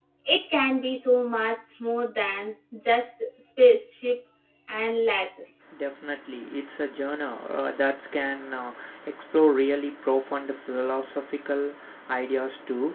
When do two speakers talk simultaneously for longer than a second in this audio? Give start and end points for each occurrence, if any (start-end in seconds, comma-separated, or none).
none